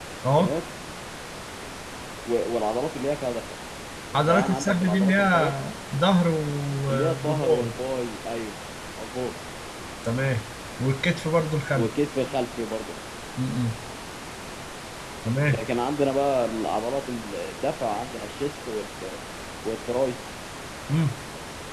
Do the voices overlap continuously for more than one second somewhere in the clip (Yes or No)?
Yes